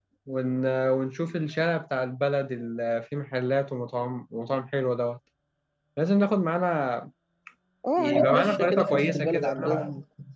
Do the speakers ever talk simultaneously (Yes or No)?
Yes